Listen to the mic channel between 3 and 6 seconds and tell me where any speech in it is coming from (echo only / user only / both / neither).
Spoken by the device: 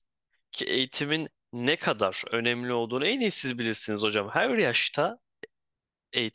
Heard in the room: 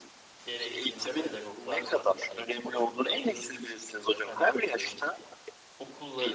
both